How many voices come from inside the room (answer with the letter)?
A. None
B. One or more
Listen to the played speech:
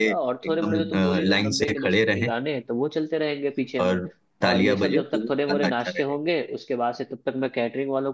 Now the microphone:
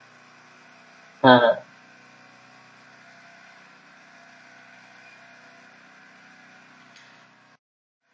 B